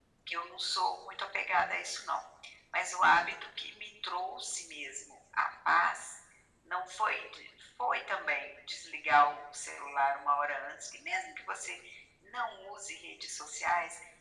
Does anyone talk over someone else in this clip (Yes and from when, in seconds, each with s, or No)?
No